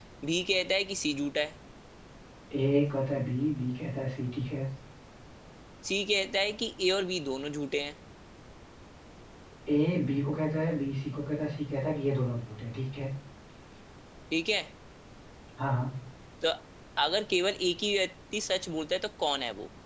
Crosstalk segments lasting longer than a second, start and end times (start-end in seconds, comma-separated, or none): none